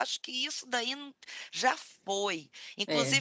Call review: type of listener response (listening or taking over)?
listening